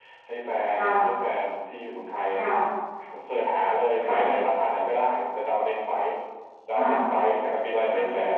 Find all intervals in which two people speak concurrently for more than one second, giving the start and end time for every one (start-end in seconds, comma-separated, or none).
none